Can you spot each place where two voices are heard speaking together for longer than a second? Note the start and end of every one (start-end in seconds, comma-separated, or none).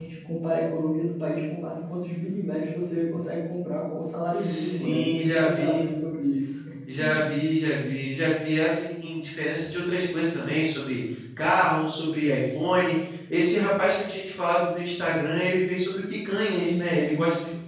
4.3-5.8